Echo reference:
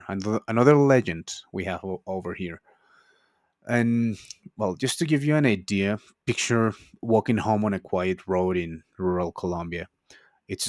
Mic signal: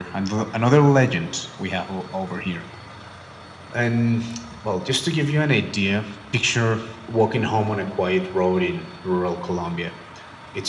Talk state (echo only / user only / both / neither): echo only